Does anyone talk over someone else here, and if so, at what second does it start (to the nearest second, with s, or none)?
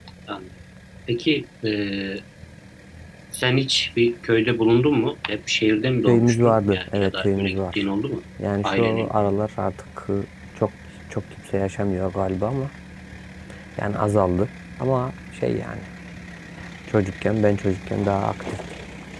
6 s